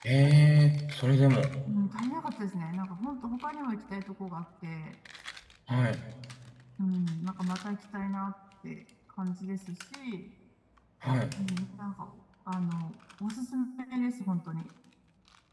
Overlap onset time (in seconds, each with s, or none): none